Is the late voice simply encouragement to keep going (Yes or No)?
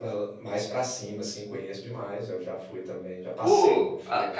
No